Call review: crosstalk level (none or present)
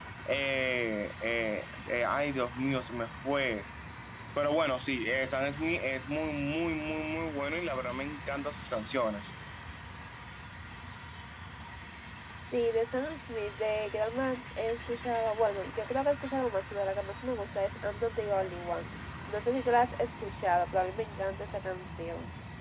none